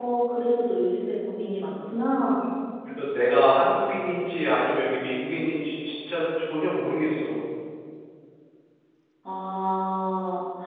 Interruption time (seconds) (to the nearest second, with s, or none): none